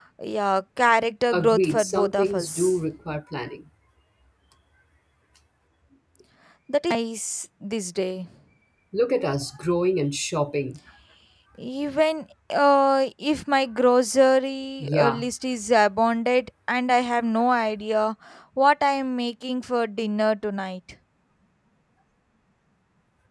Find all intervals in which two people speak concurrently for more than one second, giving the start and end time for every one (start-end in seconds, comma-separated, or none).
1.3-2.8